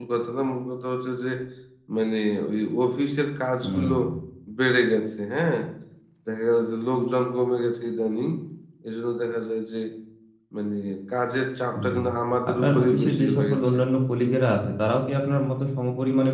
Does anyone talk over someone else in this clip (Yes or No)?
Yes